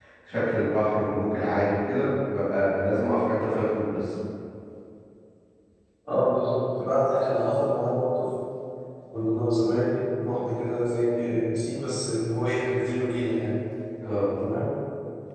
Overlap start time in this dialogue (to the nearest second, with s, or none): none